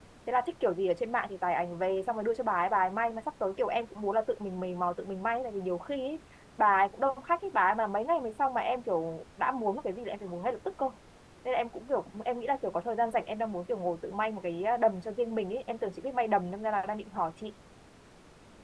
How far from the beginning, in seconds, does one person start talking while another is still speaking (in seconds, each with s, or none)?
none